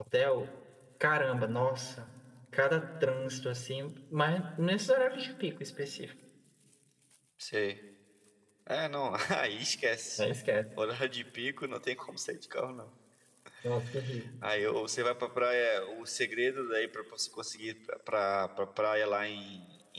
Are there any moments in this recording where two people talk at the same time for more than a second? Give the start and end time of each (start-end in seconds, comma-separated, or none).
none